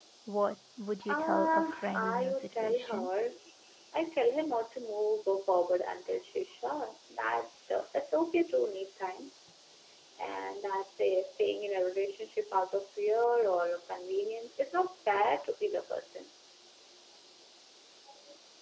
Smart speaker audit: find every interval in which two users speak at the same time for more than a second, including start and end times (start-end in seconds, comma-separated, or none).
1.1-3.1